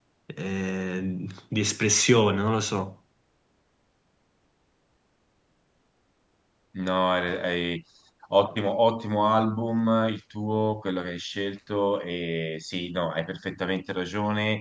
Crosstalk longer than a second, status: none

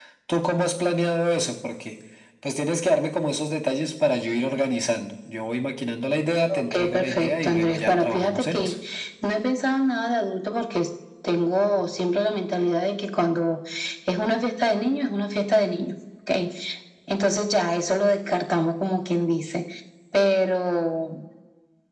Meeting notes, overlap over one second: present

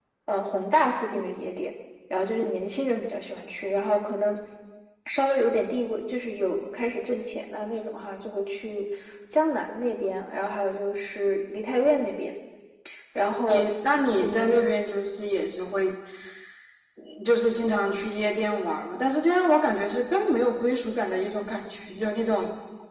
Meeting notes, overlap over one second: none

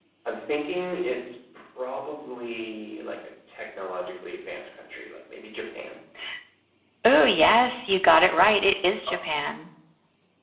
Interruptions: none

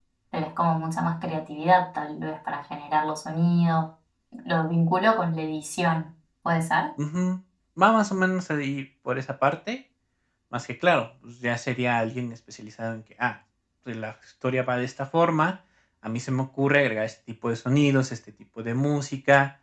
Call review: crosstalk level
none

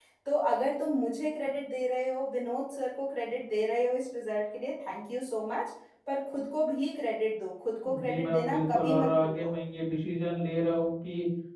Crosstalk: present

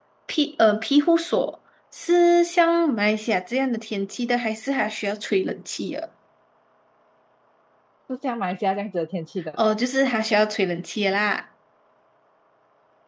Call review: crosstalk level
none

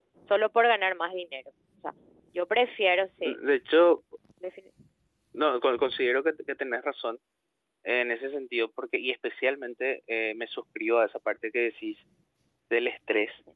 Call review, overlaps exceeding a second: none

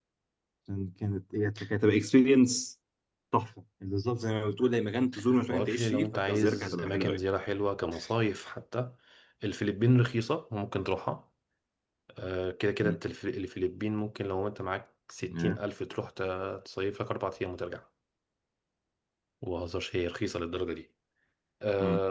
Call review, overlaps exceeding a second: present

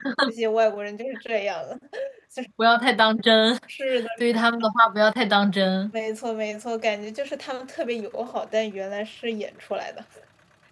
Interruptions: none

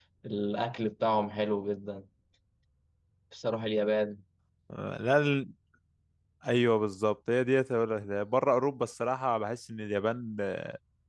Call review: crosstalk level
none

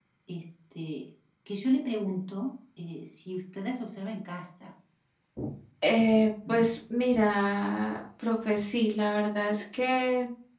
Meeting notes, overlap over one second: none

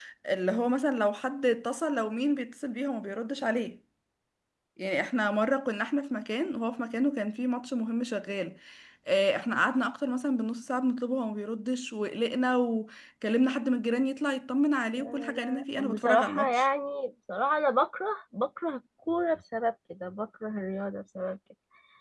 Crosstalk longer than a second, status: present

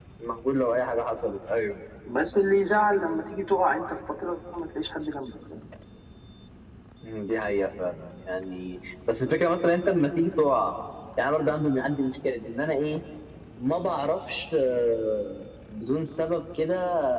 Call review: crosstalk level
none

